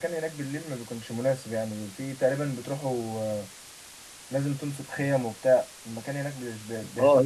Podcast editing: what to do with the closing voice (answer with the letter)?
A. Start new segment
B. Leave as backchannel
A